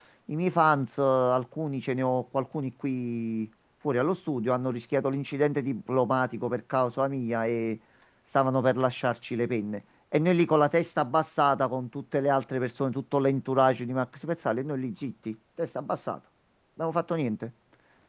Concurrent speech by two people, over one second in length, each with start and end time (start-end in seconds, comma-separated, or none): none